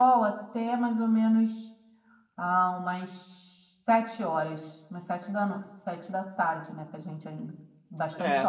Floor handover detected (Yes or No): Yes